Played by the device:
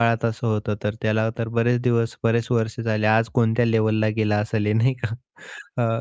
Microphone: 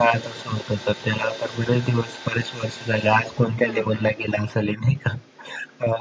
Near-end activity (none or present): present